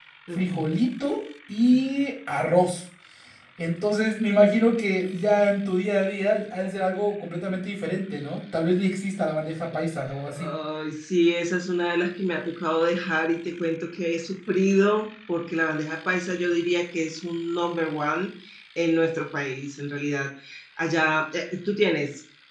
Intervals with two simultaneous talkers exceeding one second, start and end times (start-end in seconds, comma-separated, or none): none